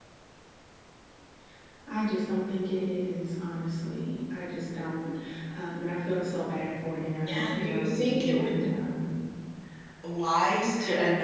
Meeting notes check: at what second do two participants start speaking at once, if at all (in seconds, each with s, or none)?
7.3 s